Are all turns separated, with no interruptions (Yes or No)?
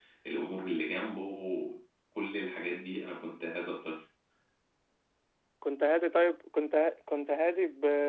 Yes